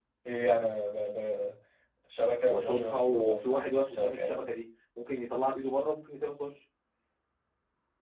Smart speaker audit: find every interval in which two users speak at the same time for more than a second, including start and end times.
2.5-4.4

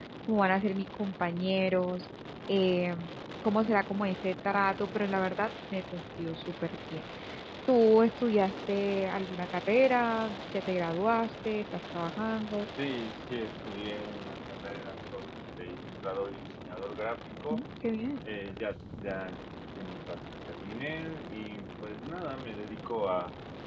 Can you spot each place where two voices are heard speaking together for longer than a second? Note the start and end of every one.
none

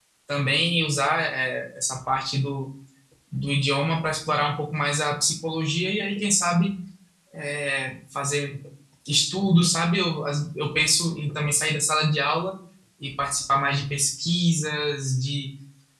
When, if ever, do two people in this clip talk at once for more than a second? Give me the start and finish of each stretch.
none

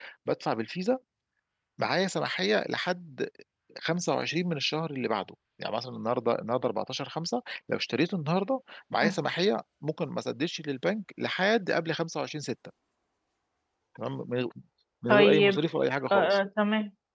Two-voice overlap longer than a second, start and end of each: none

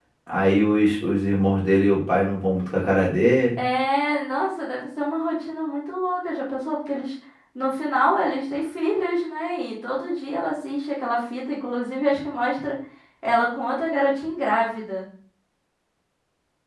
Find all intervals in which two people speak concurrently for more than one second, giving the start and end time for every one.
none

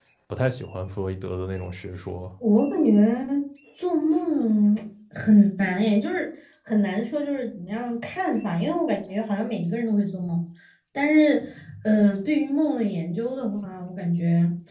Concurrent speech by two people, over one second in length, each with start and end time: none

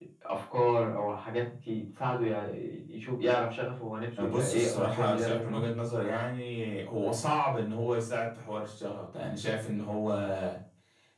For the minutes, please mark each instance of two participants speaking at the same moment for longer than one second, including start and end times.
4.2-5.6

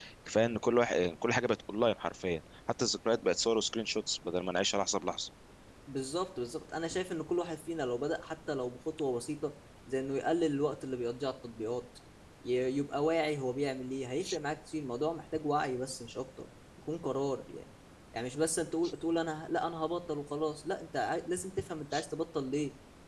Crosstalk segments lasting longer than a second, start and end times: none

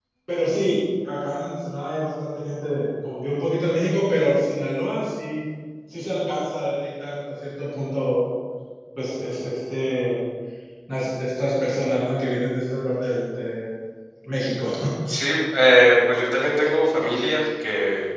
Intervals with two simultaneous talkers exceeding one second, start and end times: none

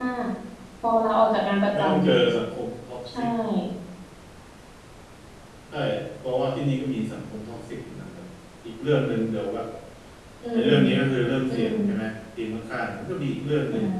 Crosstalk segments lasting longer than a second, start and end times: none

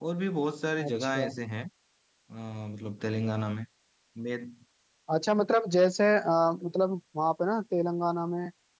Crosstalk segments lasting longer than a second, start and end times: none

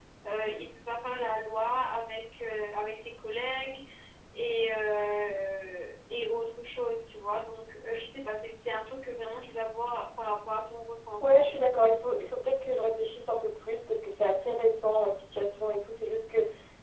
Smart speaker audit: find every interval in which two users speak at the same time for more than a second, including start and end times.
none

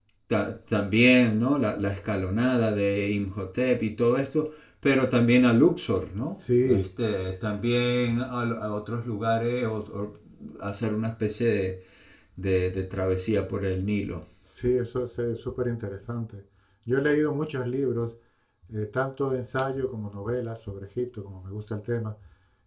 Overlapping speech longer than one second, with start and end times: none

